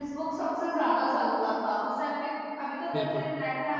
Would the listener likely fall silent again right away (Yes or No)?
Yes